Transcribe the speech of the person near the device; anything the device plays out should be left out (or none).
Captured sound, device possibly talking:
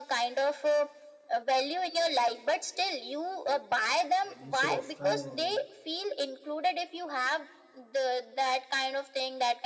right? Instead of trying to